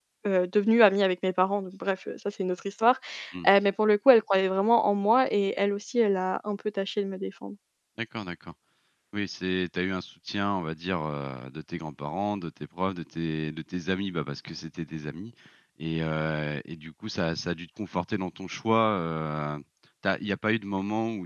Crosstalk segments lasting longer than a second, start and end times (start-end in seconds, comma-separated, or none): none